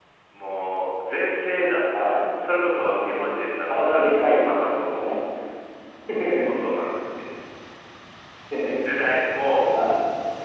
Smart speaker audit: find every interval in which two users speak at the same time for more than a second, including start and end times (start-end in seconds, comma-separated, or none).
3.7-5.2